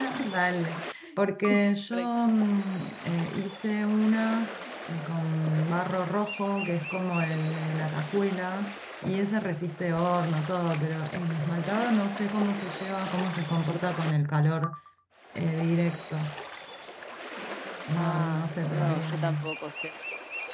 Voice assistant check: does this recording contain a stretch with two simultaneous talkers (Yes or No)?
Yes